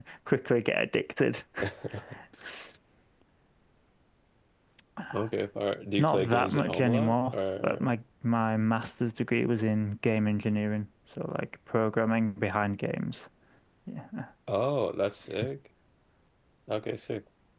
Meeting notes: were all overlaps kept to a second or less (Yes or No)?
No